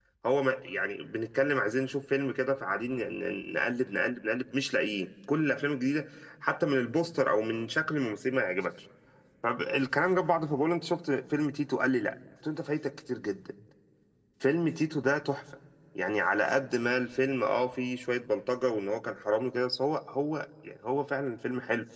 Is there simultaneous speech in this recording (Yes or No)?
No